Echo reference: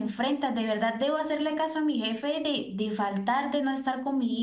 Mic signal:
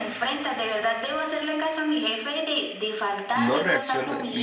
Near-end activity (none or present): present